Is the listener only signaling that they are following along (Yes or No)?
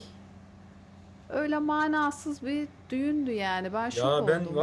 No